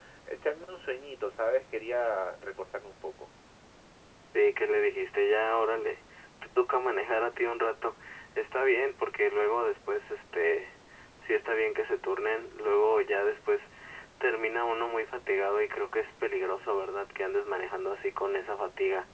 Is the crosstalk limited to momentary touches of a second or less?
Yes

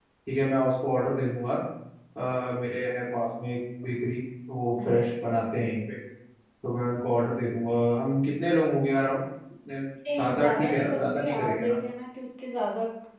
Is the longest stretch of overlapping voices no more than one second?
No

